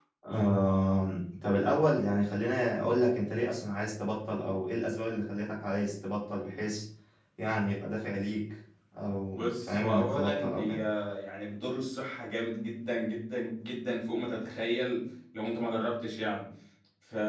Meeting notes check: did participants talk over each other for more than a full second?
Yes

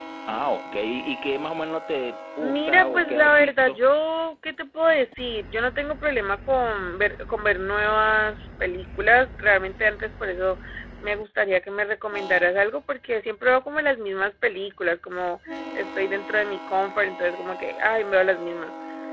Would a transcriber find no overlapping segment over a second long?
No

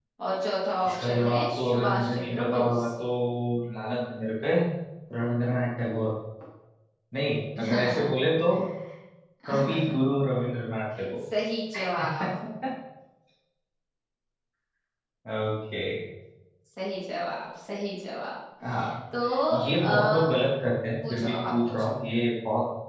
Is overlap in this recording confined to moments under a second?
No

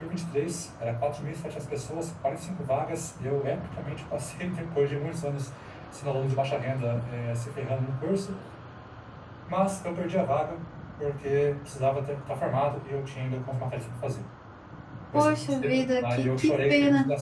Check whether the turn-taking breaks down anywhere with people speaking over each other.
Yes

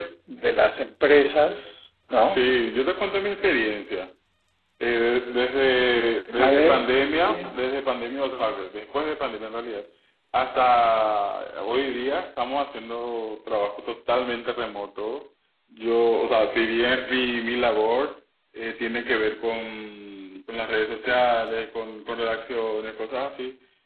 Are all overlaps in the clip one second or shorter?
No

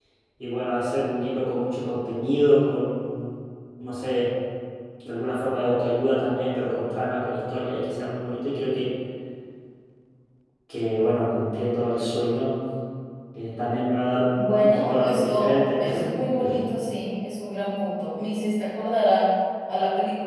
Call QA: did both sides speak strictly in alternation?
No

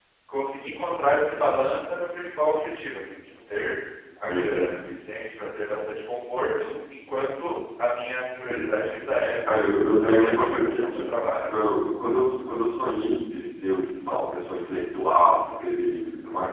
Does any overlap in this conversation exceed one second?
Yes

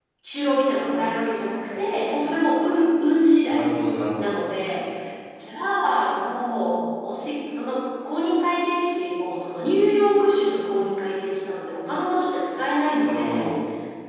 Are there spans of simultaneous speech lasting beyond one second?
No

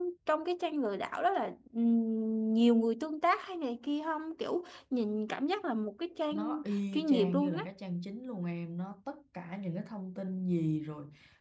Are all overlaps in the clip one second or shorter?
No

